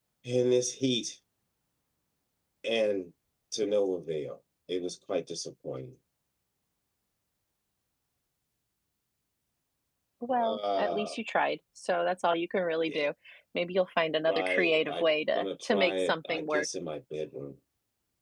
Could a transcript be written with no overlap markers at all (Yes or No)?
No